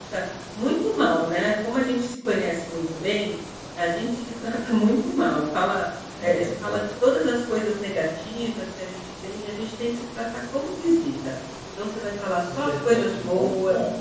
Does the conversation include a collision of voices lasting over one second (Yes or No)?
Yes